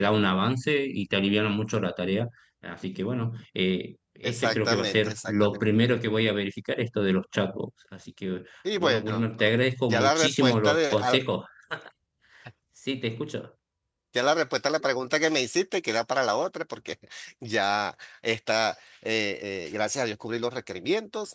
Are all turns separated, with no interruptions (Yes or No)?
No